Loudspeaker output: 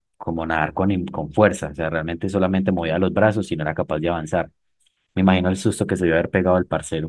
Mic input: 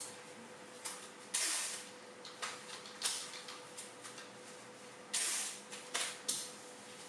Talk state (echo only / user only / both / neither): neither